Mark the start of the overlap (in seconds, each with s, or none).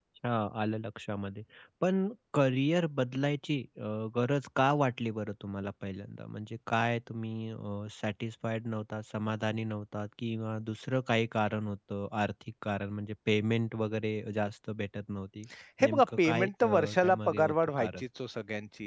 15.8 s